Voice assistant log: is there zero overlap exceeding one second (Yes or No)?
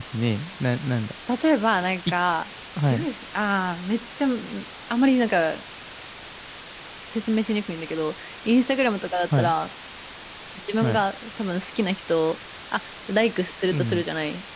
Yes